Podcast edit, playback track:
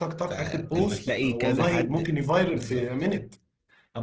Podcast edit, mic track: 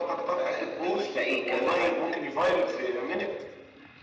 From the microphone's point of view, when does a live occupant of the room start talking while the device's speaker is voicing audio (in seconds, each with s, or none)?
none